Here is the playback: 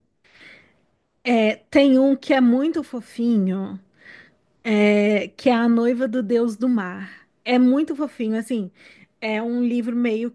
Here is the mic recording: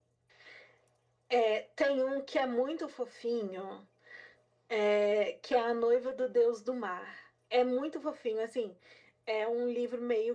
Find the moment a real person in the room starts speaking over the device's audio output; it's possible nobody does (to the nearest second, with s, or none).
none